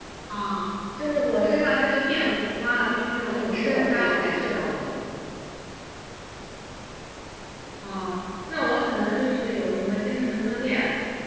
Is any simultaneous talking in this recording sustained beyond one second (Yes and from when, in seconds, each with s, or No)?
Yes, from 3.3 s